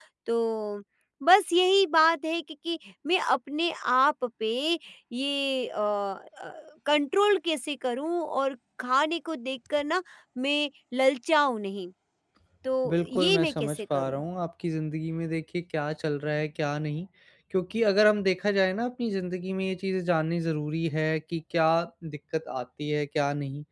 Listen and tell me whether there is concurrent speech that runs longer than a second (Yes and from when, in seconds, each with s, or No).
Yes, from 12.9 s